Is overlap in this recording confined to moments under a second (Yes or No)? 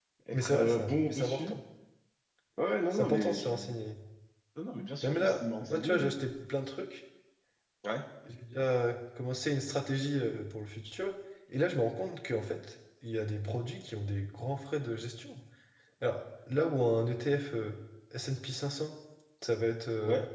No